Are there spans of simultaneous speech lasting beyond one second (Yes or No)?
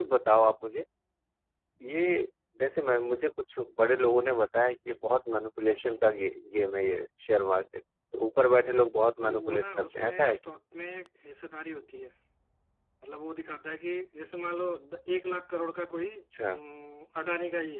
Yes